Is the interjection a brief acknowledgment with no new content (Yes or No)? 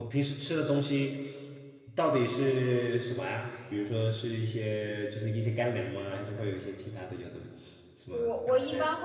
No